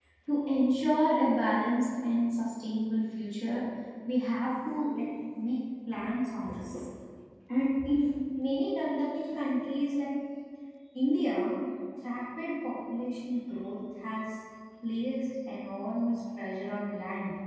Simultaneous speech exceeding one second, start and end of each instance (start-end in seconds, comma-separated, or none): none